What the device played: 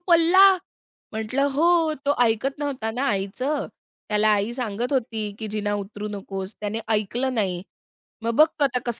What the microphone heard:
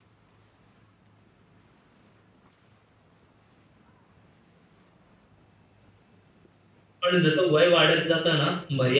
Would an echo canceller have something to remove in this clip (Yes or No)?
No